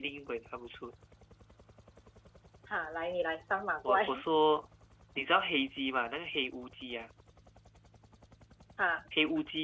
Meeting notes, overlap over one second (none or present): none